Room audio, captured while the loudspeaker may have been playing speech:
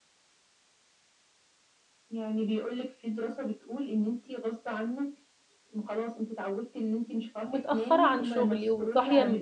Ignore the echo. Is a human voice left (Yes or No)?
Yes